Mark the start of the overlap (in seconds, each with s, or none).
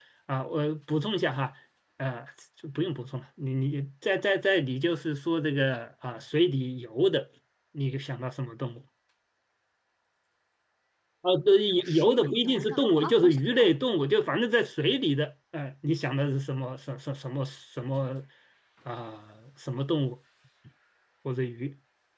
11.8 s